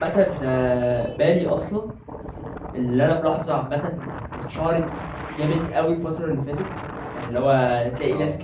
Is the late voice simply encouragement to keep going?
Yes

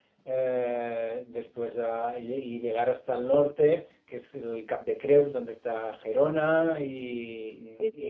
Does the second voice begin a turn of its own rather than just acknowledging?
Yes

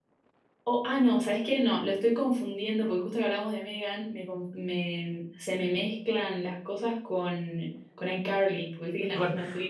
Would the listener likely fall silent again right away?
No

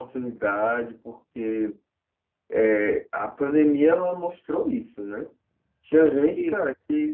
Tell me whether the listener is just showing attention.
Yes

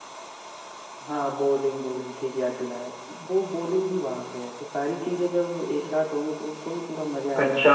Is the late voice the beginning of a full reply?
Yes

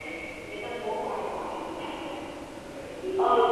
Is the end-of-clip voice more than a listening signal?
Yes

